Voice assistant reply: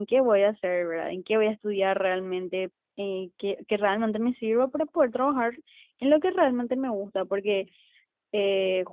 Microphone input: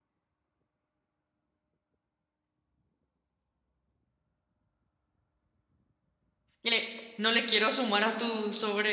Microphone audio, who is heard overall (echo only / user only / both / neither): user only